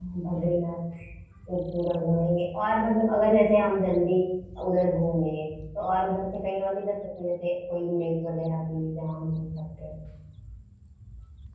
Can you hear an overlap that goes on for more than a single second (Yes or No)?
No